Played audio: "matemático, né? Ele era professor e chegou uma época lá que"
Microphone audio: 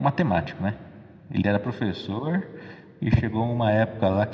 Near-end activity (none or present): none